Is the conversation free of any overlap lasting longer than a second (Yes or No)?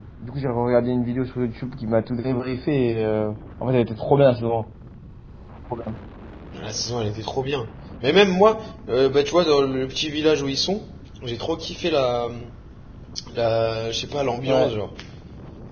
Yes